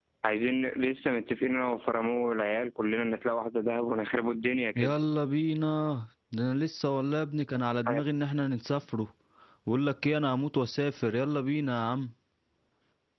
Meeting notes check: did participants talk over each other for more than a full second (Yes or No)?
No